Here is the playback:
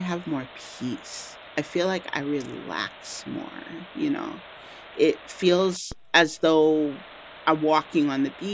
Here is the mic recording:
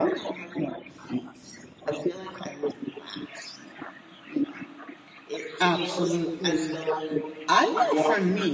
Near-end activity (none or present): present